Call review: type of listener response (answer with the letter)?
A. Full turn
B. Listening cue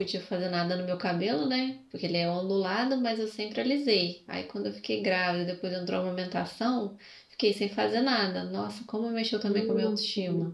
A